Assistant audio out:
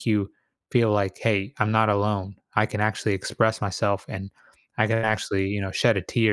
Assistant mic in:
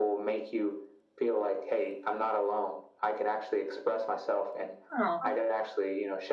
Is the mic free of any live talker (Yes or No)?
No